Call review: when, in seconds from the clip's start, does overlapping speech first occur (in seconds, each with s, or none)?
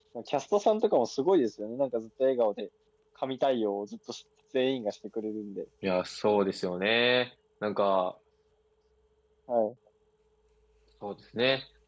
none